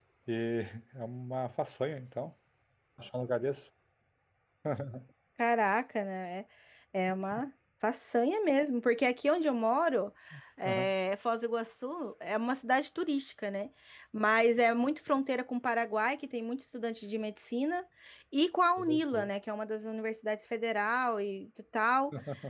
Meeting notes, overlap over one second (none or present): none